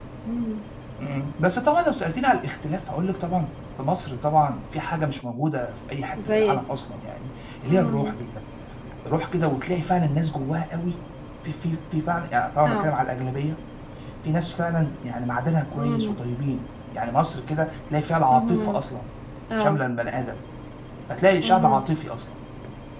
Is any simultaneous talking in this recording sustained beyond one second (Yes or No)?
No